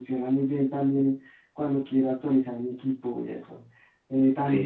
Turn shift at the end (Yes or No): No